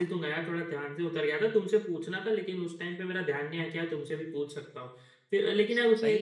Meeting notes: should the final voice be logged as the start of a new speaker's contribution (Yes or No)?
Yes